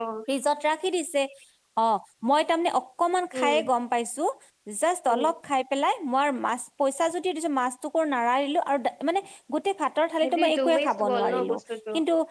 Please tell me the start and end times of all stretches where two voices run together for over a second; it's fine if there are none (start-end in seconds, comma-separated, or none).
10.2-11.6